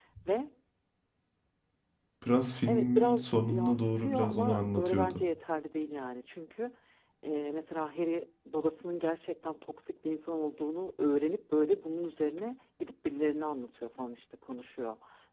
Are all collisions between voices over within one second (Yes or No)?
No